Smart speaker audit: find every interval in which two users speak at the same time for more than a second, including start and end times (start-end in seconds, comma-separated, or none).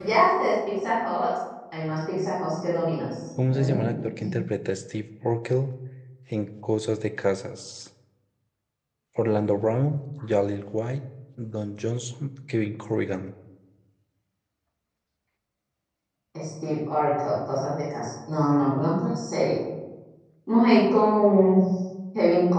none